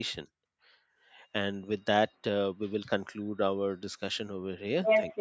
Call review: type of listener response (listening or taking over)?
taking over